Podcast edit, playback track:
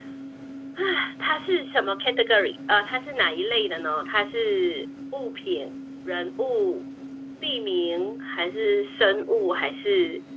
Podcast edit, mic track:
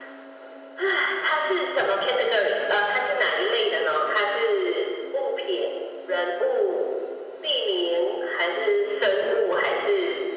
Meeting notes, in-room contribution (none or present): none